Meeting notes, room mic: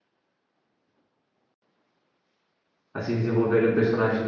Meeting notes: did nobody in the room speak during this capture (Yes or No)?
No